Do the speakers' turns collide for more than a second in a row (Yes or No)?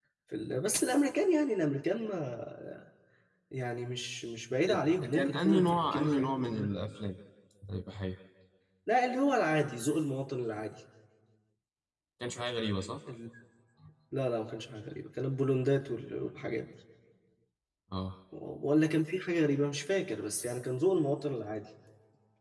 Yes